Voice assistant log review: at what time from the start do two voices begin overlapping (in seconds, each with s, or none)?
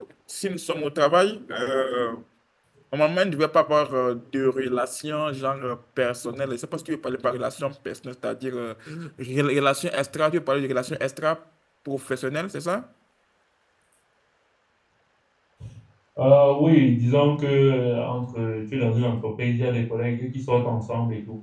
none